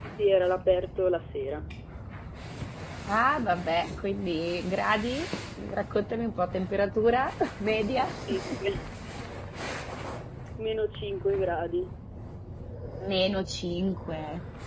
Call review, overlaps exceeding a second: none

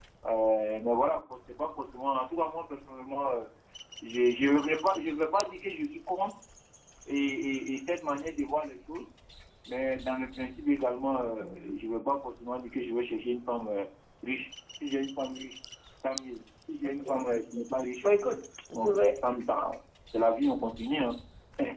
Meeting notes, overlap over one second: none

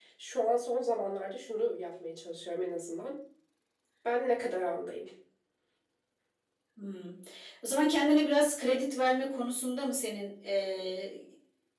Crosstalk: none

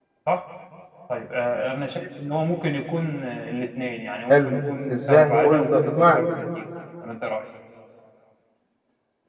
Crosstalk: present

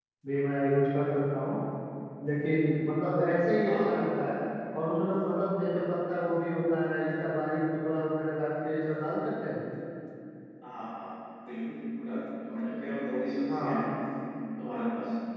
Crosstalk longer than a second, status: none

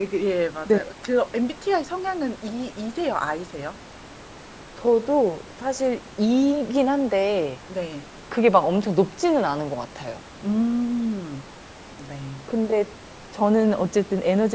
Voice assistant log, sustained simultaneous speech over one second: none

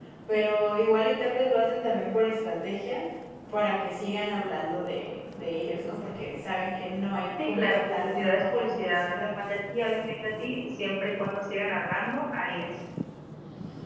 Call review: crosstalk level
present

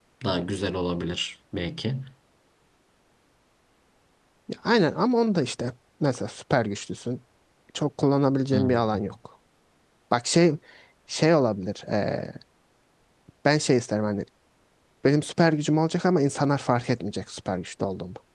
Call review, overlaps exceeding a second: none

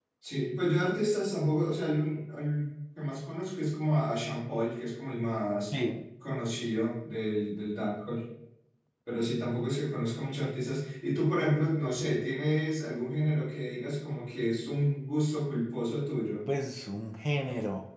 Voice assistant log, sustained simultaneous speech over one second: none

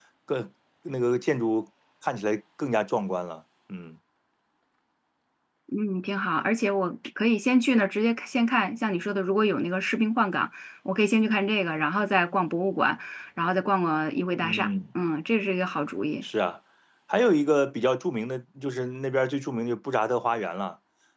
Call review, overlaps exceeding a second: none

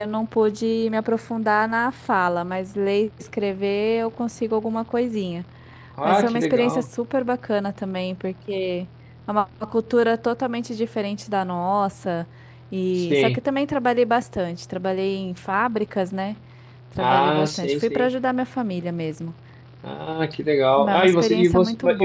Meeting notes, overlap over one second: present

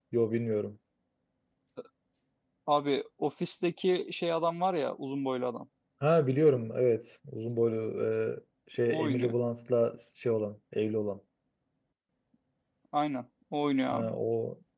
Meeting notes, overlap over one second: none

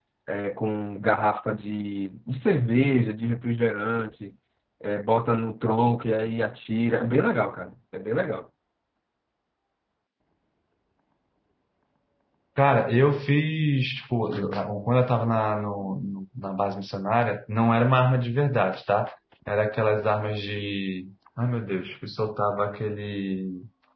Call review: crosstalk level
none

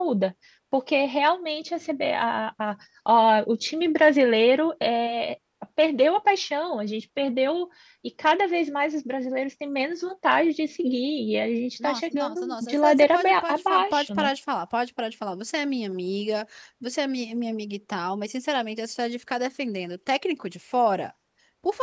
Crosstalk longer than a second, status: present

